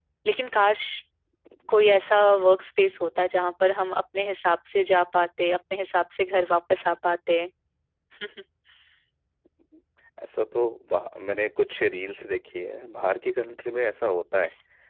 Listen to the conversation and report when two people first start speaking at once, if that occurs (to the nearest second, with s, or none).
none